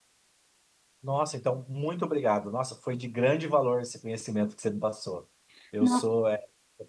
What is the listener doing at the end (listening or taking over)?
listening